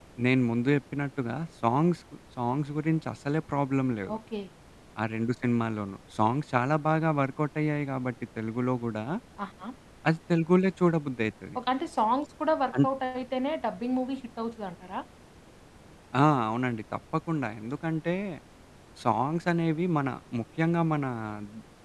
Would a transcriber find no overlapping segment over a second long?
Yes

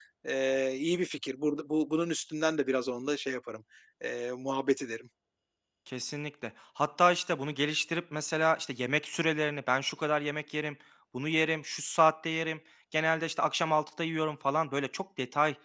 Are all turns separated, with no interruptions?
Yes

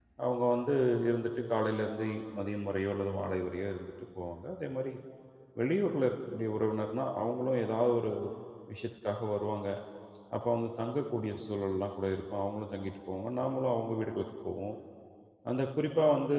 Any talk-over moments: No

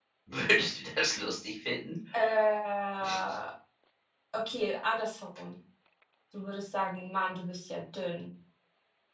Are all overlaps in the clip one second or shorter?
Yes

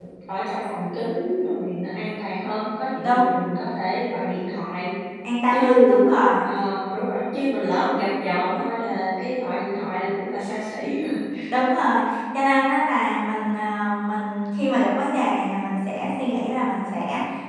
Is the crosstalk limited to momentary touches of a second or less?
Yes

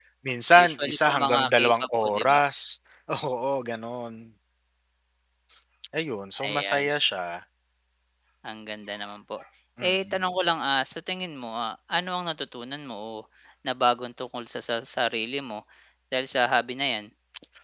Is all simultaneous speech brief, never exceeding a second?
No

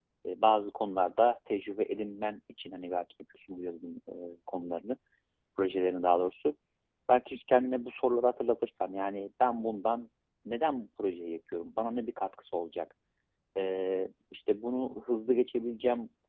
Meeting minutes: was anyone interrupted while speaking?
No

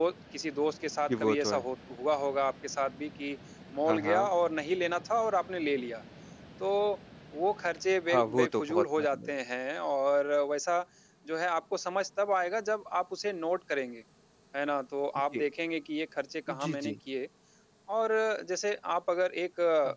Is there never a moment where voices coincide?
No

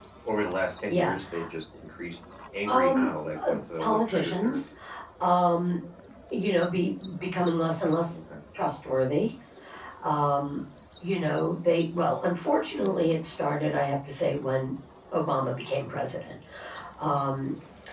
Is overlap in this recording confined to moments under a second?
No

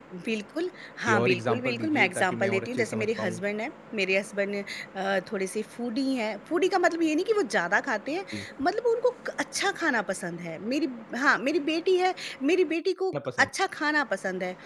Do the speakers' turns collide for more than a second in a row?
Yes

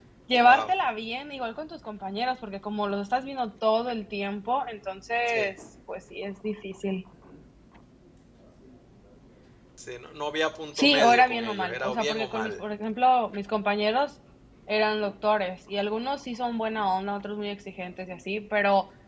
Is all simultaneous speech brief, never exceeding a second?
No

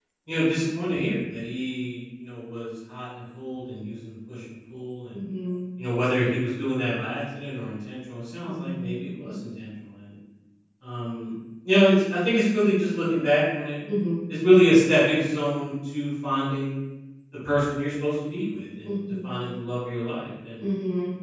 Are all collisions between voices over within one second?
Yes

